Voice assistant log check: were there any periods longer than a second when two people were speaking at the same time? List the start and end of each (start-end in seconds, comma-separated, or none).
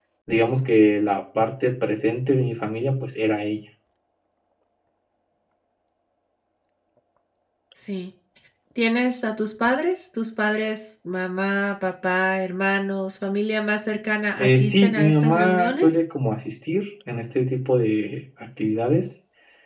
14.4-15.9